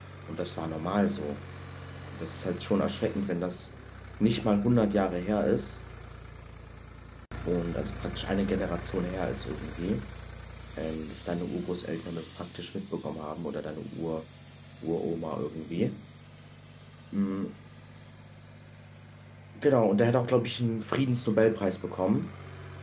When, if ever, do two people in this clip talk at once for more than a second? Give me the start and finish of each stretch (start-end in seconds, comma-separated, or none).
none